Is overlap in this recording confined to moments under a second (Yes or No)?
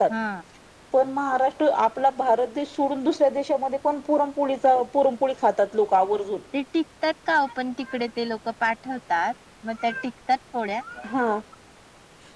Yes